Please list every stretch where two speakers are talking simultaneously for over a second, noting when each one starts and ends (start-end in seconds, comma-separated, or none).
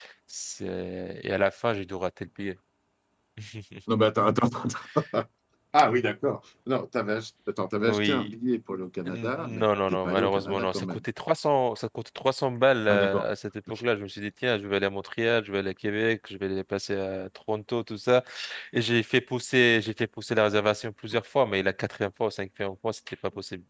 9.1-11.0